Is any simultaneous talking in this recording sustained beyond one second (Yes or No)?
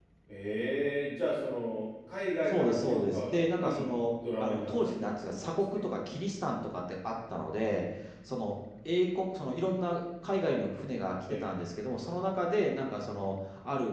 Yes